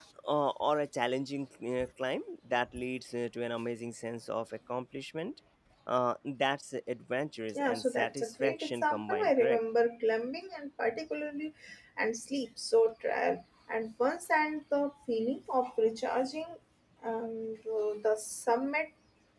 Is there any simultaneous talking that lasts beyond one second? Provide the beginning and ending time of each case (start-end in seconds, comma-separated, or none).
7.5-9.6